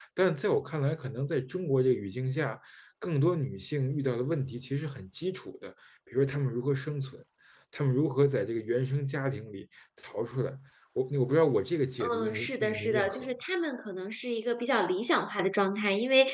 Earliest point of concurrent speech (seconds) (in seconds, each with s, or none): 12.0 s